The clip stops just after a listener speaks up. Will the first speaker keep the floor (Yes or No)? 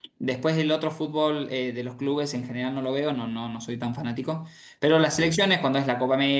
Yes